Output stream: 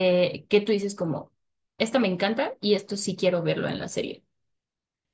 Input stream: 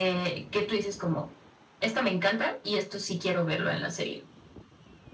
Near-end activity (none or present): none